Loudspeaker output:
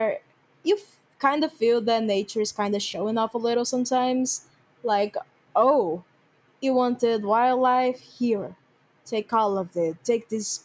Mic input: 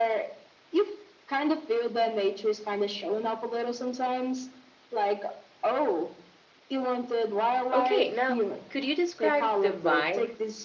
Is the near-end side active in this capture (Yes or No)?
Yes